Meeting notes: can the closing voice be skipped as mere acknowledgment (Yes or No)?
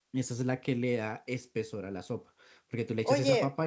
No